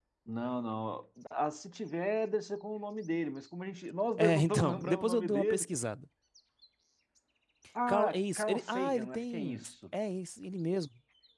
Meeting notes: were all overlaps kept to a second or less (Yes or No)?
No